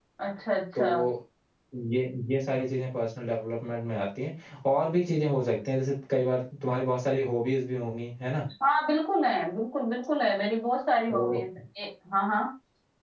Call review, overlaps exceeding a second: none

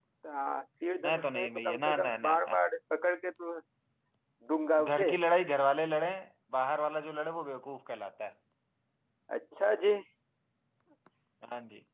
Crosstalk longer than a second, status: present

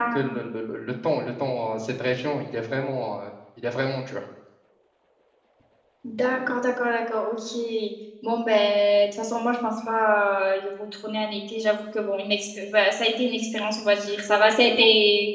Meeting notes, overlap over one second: none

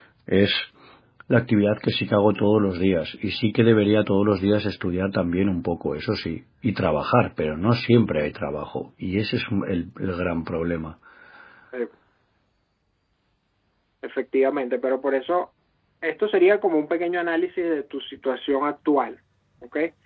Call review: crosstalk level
none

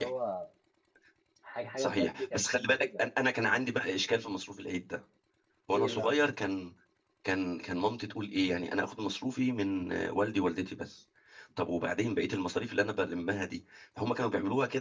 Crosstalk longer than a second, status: present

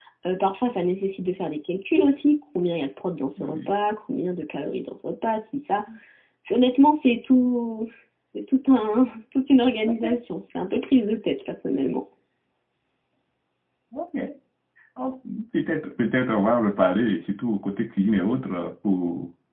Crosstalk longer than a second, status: none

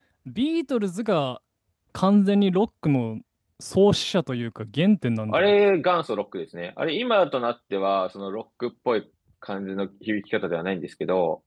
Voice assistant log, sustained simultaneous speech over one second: none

